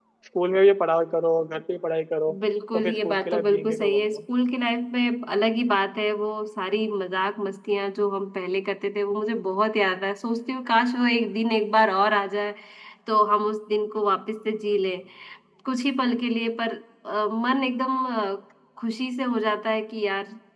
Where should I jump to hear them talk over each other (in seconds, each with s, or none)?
2.7 s